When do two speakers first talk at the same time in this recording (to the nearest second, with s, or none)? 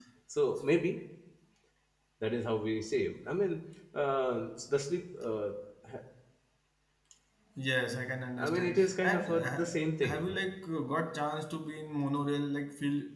8 s